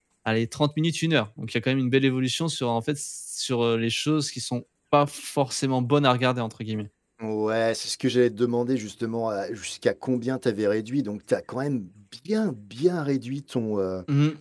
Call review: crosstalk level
none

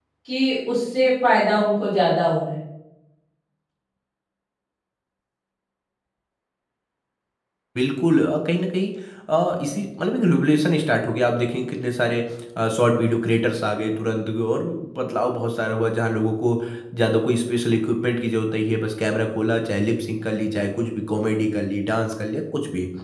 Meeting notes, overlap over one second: none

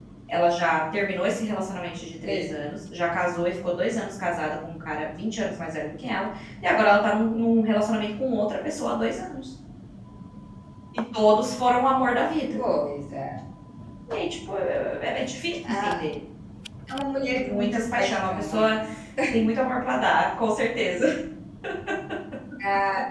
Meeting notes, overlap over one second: present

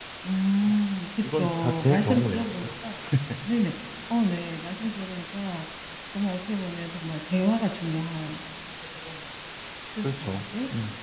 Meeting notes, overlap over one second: present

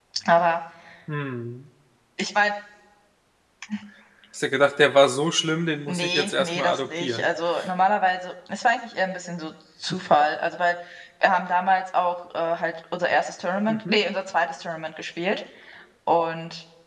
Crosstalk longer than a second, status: present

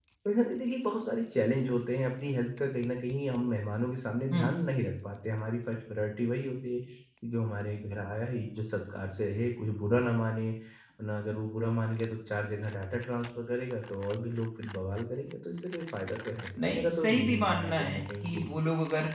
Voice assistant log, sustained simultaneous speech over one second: present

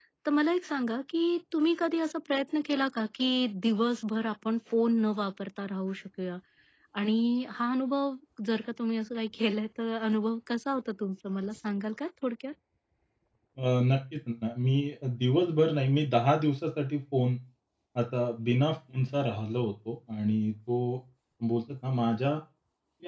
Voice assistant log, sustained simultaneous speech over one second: none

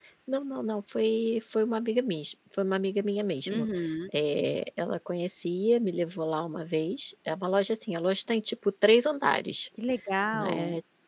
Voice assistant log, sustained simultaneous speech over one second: none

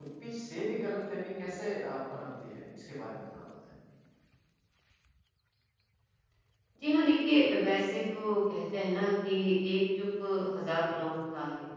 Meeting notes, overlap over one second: none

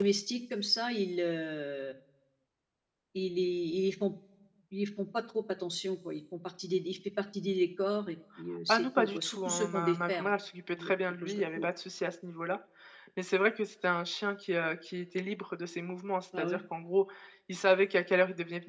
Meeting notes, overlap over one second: present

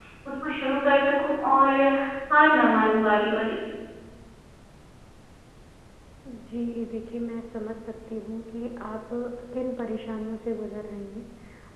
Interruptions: none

